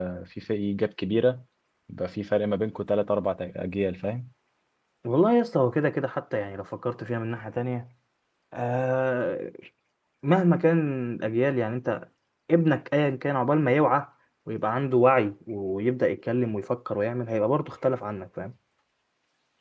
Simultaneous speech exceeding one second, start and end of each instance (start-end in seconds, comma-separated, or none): none